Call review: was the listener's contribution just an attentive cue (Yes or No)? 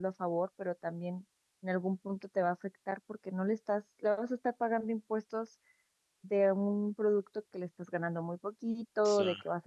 Yes